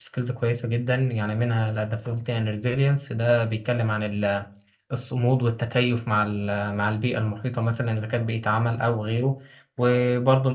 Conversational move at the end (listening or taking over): listening